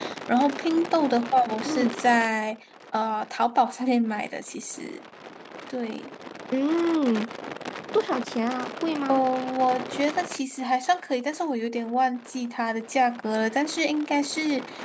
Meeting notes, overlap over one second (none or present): none